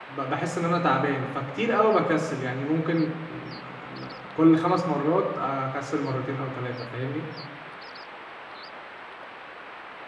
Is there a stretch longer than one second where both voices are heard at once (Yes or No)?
No